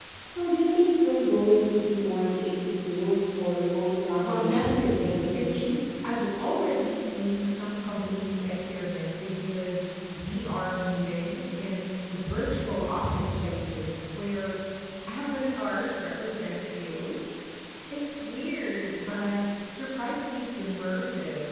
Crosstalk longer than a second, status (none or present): present